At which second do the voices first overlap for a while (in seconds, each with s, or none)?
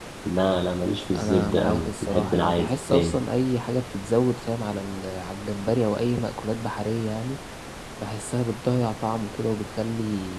1.1 s